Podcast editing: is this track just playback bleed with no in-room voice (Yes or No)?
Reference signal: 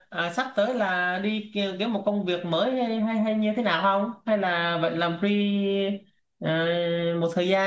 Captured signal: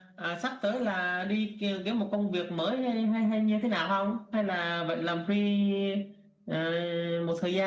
Yes